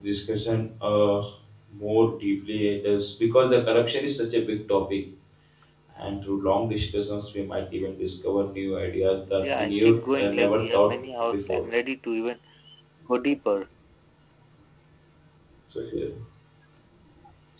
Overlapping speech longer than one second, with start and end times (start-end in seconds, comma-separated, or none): 9.3-10.9